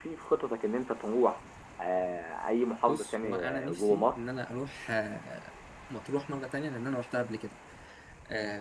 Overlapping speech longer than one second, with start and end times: 2.9-4.2

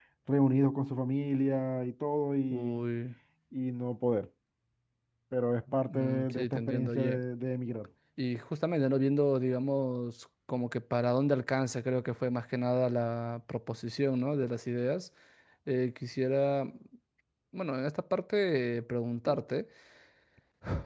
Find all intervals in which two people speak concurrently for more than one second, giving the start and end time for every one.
5.9-7.2

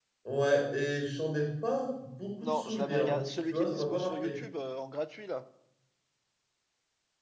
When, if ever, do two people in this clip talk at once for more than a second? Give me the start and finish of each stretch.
2.4-4.4

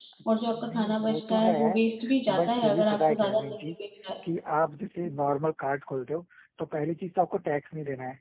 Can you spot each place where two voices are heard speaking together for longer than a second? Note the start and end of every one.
0.5-1.8, 2.4-3.5

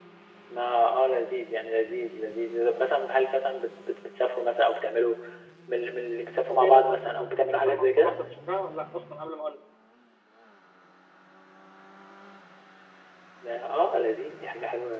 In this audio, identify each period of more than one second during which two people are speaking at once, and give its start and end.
6.5-8.1

